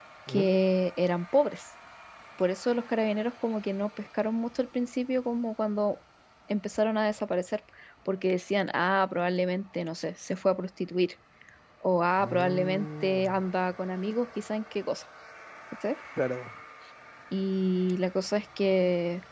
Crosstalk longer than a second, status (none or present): present